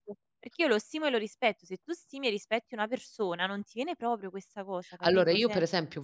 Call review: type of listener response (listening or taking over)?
taking over